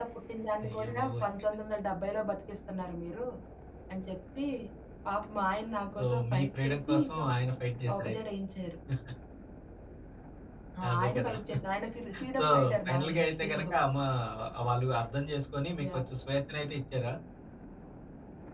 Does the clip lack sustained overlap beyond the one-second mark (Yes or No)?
No